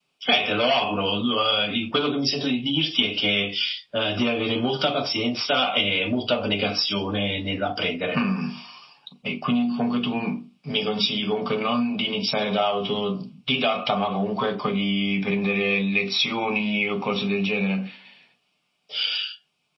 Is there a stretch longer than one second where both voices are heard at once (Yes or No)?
No